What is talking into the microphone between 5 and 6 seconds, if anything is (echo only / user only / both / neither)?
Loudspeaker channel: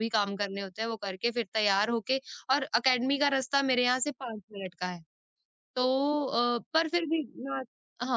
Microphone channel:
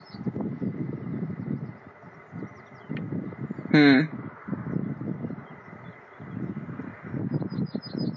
neither